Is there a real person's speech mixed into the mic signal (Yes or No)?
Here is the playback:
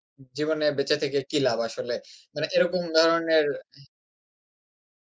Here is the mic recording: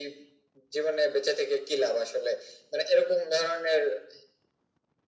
No